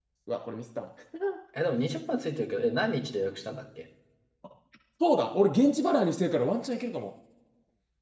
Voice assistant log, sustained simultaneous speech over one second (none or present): none